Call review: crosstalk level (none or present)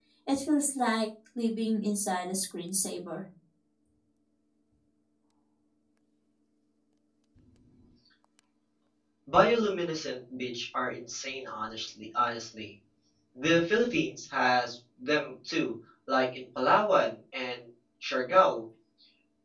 none